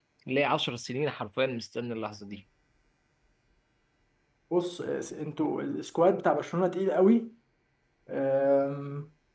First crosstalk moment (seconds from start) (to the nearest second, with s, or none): none